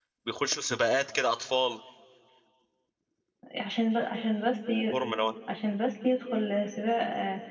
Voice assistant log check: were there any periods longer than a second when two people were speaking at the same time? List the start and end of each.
none

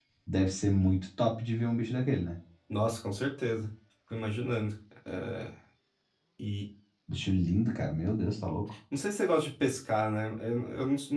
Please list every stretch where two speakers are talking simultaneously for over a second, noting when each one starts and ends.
none

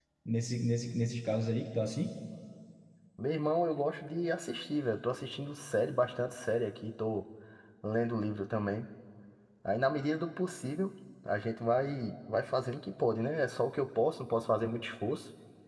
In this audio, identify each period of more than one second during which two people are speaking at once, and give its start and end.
none

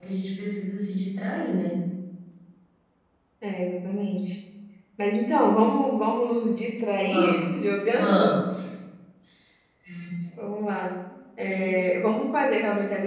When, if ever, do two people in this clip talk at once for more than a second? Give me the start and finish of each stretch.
7.0-8.3

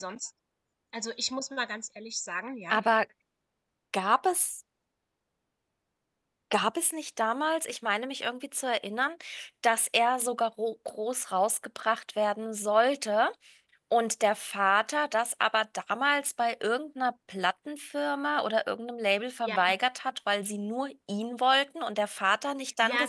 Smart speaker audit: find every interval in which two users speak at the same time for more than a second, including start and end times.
none

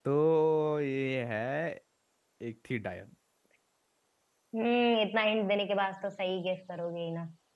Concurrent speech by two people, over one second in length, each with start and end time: none

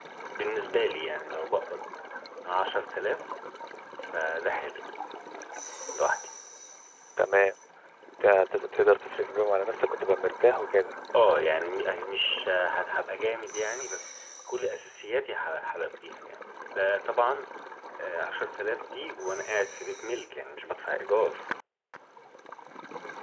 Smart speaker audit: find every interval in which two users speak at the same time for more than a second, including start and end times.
none

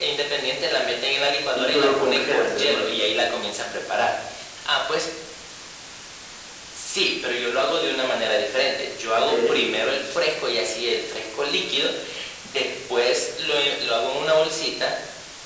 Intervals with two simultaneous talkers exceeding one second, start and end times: 1.6-2.9

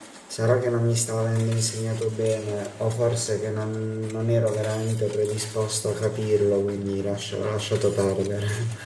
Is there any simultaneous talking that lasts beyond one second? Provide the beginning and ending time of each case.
none

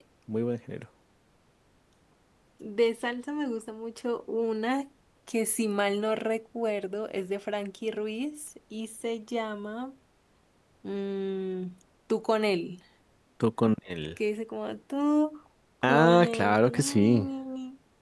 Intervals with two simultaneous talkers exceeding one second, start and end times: 15.8-17.3

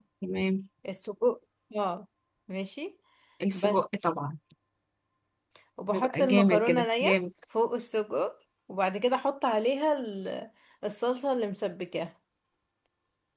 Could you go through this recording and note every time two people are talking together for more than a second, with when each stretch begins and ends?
5.9-7.2

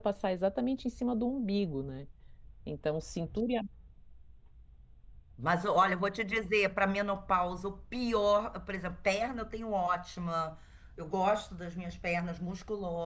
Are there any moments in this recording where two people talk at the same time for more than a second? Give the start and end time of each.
none

